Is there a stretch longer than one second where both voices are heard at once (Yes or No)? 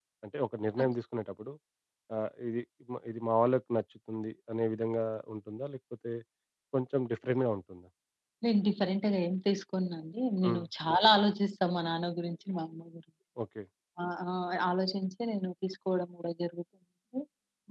No